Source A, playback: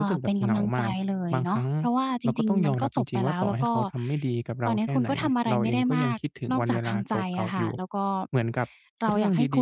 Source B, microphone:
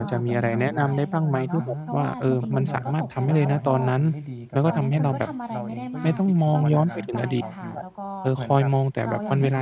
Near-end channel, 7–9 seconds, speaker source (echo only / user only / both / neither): both